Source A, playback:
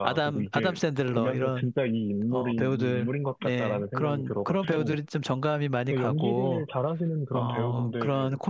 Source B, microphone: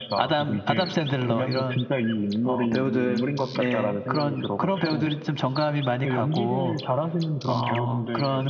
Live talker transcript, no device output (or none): none